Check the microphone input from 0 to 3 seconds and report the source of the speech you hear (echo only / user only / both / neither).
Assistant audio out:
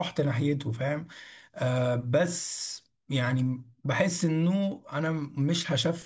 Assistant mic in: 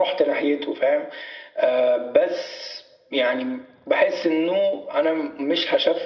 echo only